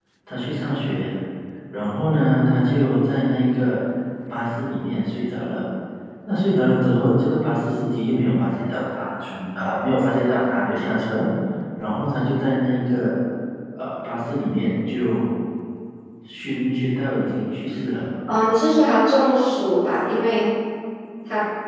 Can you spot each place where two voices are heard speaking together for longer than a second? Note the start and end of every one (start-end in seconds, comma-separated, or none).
none